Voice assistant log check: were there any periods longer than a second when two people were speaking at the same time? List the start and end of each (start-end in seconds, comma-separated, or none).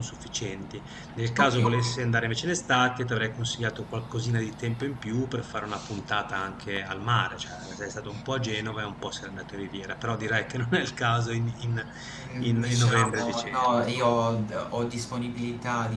12.4-13.8